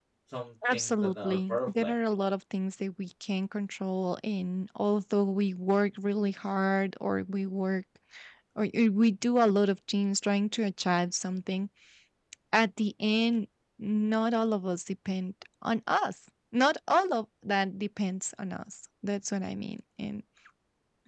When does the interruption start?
0.7 s

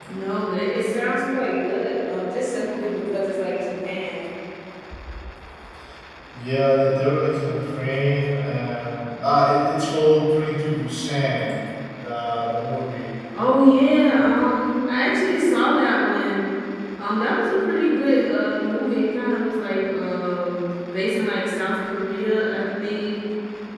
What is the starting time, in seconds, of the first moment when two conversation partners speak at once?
none

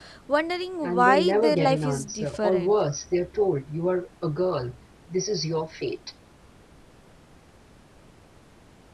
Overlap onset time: 0.8 s

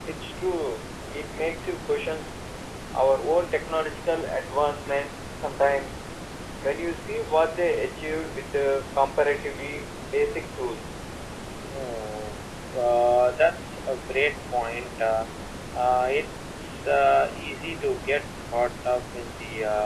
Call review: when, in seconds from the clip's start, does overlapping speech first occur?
none

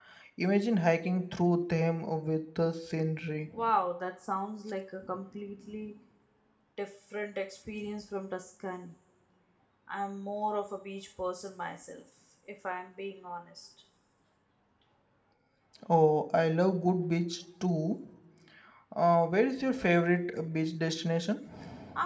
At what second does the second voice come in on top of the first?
none

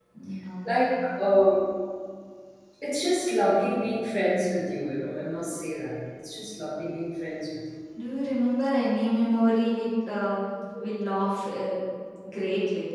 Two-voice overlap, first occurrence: none

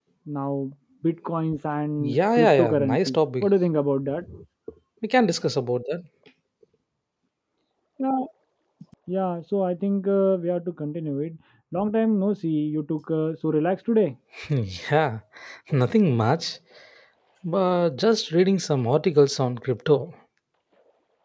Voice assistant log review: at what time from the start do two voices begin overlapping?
2.0 s

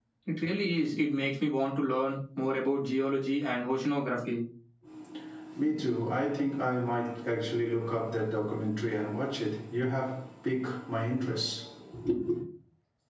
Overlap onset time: none

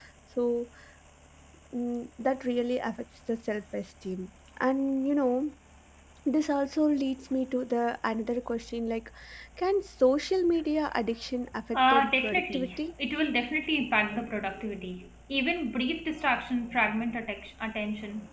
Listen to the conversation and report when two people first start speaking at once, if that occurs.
11.7 s

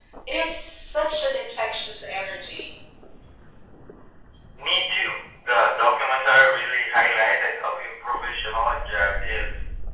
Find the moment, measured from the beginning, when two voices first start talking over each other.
none

